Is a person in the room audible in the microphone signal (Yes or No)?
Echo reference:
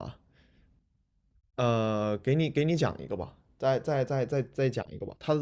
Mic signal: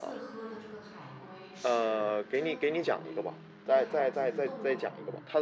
Yes